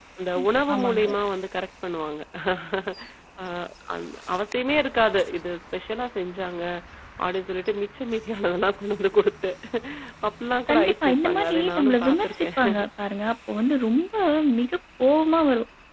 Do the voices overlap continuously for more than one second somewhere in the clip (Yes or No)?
Yes